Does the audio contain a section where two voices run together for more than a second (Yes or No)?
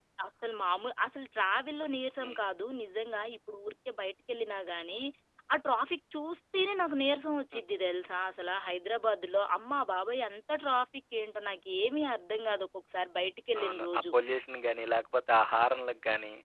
No